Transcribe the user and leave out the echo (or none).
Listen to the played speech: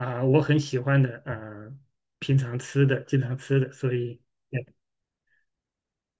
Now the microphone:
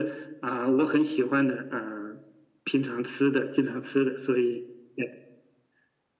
none